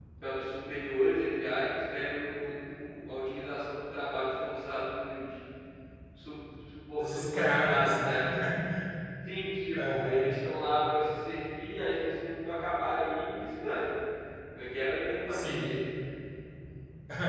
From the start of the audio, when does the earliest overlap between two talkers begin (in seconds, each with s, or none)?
7.0 s